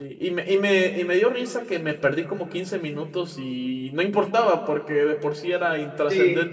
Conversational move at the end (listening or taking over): taking over